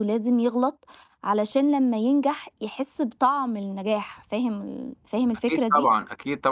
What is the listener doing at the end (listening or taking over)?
taking over